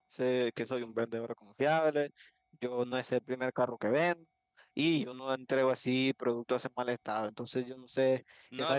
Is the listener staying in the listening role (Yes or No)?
No